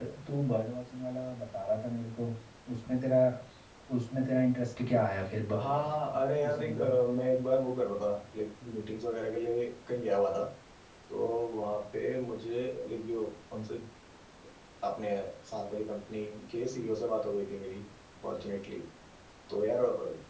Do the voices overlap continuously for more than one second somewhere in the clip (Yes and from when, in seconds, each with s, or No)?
Yes, from 5.6 s